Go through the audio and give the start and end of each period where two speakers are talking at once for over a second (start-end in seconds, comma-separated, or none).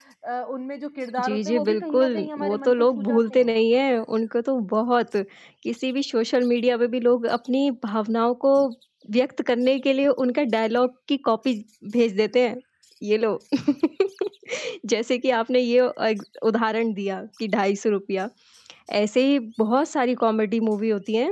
1.2-3.5